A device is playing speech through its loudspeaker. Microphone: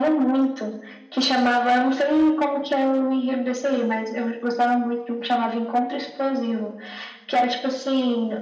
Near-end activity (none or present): none